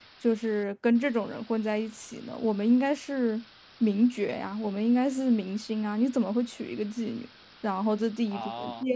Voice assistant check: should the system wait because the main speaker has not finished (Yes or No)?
Yes